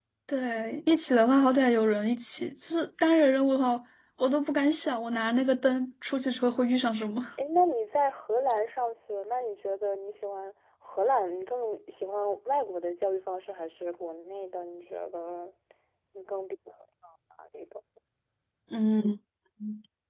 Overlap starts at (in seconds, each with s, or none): none